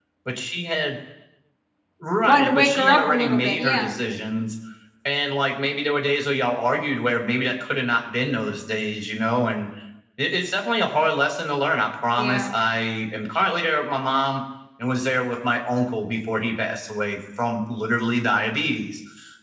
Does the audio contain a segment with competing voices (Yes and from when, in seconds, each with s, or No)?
Yes, from 2.3 s